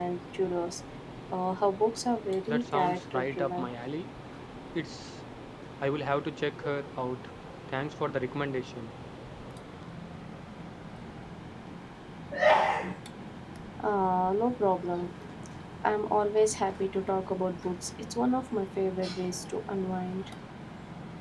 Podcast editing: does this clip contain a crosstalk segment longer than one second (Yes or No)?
Yes